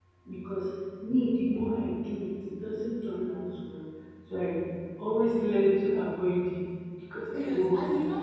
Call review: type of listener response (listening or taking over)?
taking over